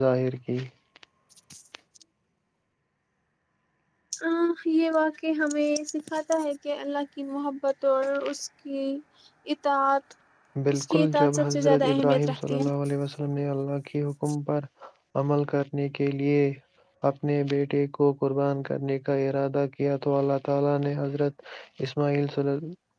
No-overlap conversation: No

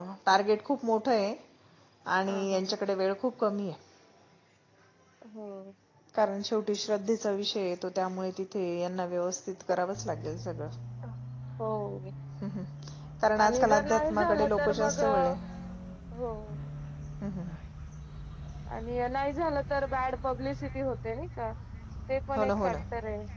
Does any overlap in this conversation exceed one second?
Yes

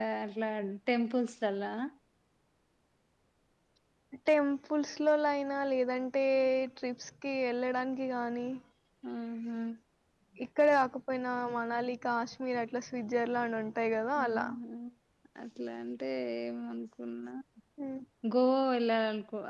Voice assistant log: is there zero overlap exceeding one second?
Yes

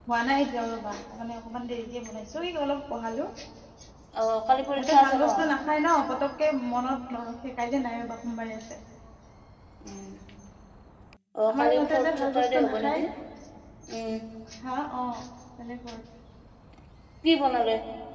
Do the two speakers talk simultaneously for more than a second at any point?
Yes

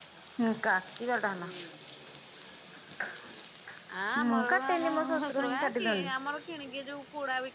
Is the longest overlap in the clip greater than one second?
Yes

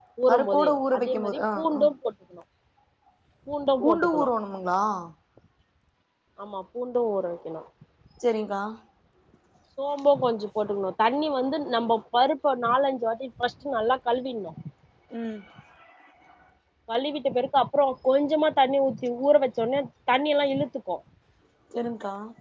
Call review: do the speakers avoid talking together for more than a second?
No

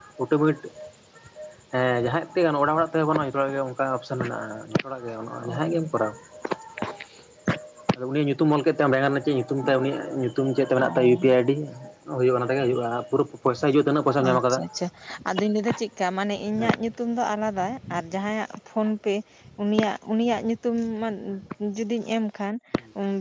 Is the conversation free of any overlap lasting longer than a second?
Yes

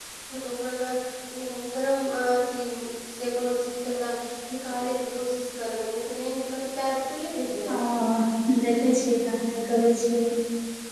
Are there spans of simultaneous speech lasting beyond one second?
No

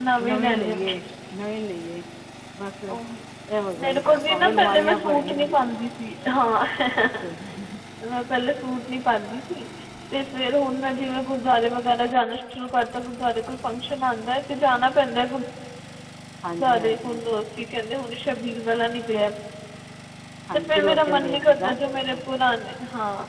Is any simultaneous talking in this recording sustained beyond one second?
Yes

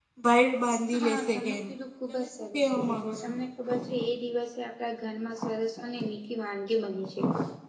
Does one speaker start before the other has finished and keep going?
Yes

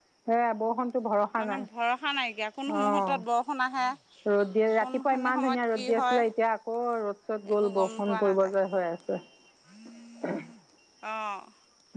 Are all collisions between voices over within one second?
No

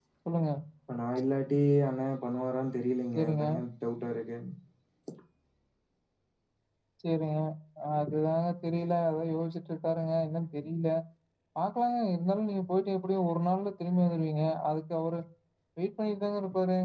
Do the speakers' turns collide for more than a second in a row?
No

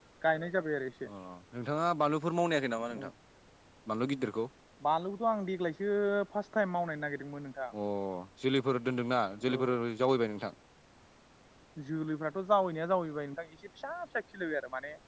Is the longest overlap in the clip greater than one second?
No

